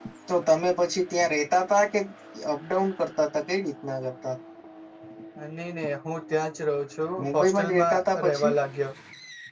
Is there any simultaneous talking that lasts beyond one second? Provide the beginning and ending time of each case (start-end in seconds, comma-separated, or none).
7.2-8.5